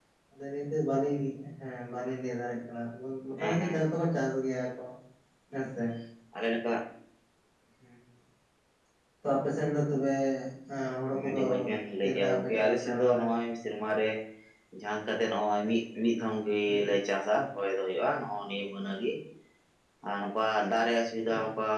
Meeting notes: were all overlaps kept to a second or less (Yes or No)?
No